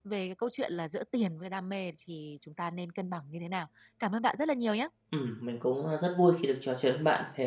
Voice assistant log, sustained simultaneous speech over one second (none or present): none